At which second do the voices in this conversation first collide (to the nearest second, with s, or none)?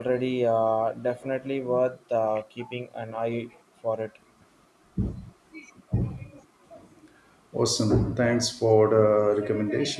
none